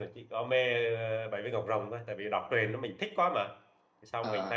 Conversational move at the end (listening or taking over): listening